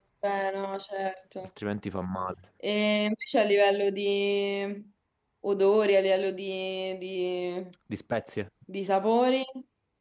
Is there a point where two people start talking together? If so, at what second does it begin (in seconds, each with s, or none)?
none